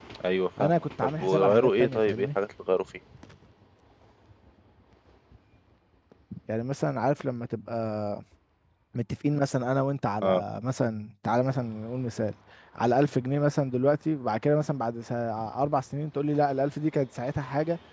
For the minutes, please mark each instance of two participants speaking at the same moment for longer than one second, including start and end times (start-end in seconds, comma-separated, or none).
0.6-2.3